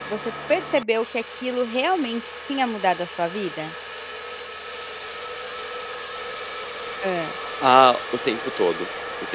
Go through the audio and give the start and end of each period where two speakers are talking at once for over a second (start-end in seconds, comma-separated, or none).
none